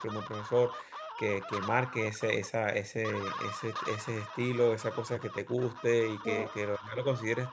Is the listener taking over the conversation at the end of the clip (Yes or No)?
No